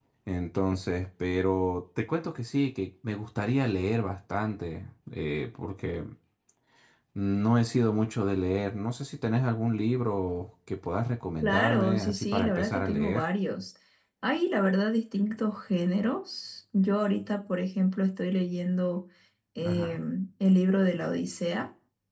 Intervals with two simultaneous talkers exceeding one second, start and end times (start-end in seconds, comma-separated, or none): 11.4-13.2